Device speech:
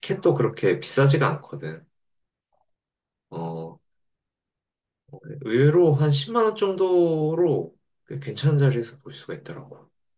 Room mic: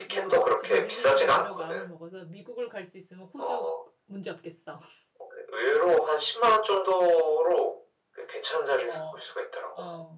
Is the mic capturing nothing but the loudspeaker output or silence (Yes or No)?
No